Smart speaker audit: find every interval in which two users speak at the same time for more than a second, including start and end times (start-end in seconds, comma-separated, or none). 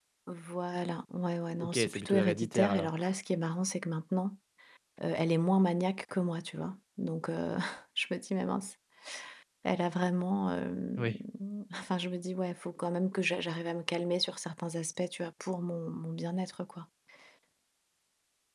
1.6-2.9